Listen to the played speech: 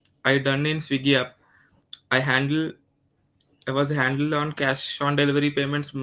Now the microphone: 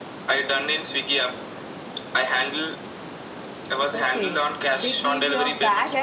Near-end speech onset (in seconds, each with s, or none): 3.9 s